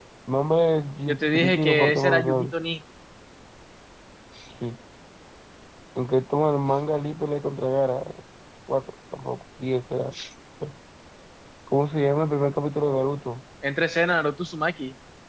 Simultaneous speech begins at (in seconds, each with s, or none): 1.1 s